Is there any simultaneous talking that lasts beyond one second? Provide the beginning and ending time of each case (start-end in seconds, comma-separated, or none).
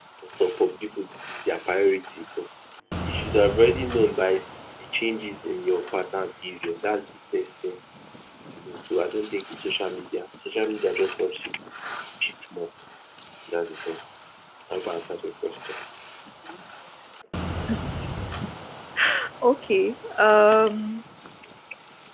none